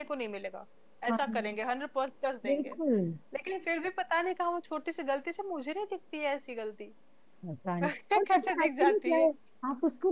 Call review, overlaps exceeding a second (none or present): present